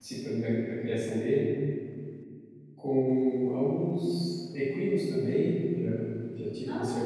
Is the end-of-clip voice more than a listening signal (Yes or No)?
No